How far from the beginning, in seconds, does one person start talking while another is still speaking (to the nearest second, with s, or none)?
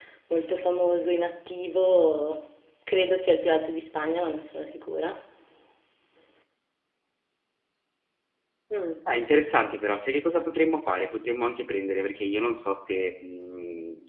none